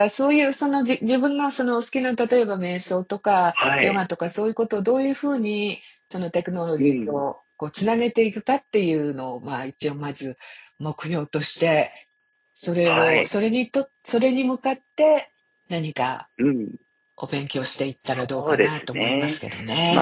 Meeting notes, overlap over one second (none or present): present